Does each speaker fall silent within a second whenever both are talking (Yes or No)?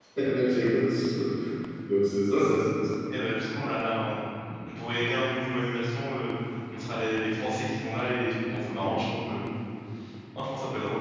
Yes